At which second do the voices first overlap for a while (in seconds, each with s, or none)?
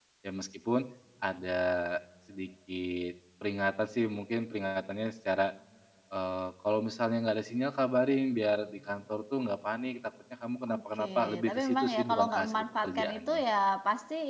10.7 s